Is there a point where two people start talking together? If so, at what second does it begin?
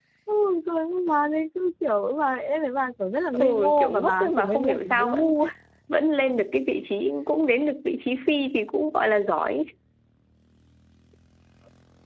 3.3 s

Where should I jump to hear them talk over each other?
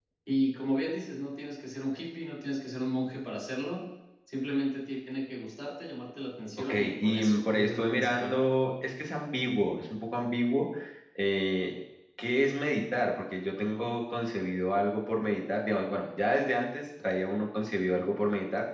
6.7 s

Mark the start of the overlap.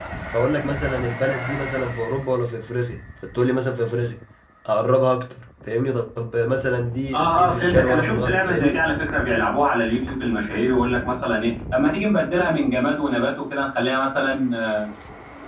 7.1 s

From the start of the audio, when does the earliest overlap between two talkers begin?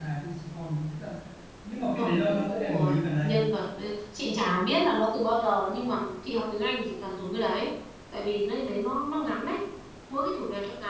1.9 s

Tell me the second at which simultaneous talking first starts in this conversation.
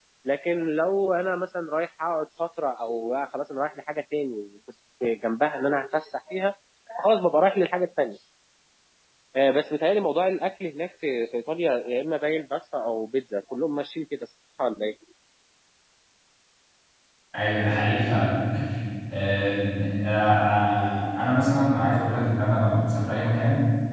none

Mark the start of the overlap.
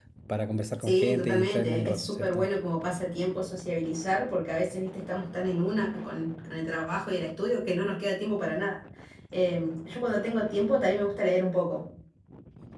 0.8 s

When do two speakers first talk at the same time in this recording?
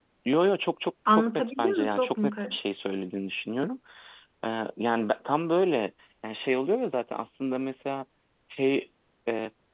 1.1 s

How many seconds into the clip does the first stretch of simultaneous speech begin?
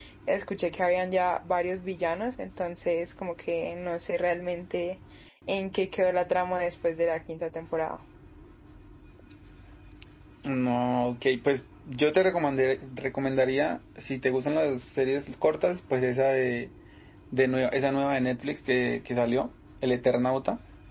none

